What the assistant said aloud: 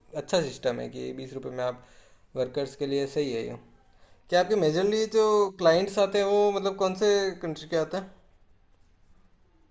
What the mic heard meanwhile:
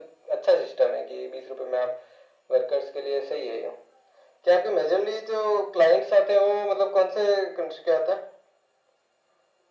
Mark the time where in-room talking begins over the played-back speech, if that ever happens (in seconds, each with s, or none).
none